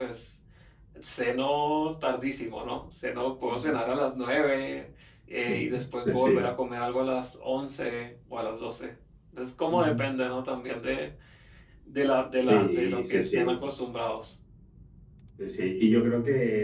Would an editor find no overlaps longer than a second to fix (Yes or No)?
No